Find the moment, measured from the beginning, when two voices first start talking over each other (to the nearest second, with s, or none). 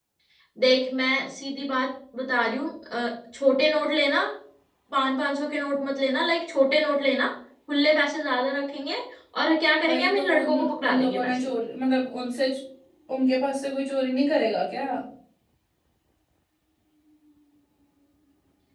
10 s